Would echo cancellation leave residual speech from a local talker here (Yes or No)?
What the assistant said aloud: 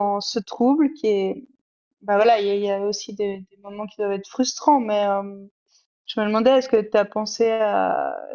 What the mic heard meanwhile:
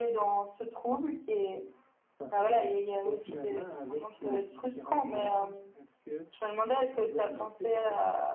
Yes